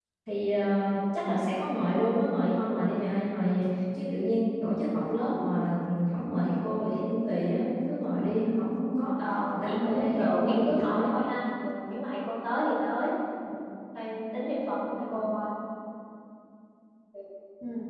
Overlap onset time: 9.6 s

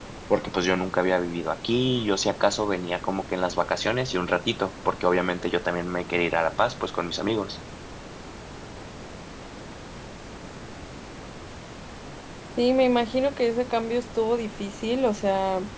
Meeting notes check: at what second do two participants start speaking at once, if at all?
none

